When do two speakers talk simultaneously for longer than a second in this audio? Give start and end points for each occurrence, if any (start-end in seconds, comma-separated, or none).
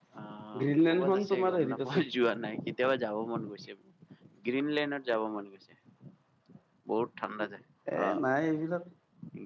0.6-2.0